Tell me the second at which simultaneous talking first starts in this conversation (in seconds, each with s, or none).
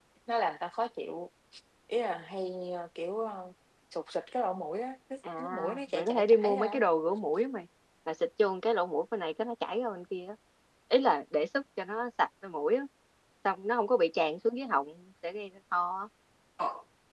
5.2 s